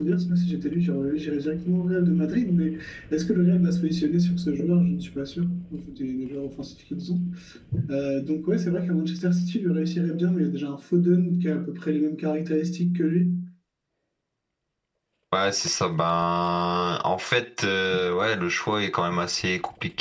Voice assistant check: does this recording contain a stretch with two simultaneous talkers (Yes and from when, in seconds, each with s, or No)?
No